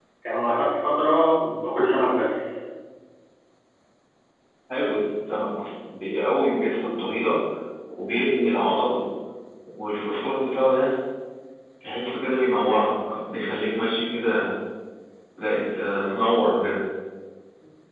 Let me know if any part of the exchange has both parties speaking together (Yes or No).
No